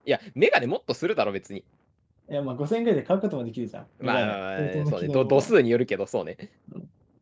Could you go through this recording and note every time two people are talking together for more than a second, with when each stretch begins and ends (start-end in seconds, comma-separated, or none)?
4.0-5.5